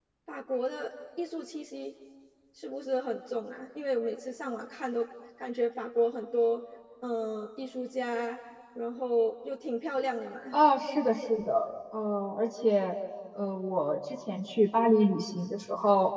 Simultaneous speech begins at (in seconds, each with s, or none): none